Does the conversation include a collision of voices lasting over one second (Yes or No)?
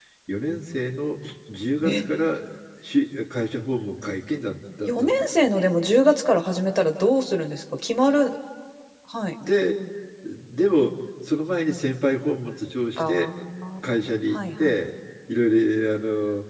No